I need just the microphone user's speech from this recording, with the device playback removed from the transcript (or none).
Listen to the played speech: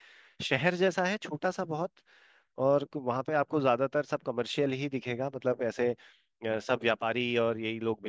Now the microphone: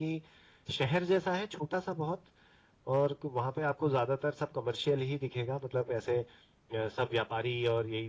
none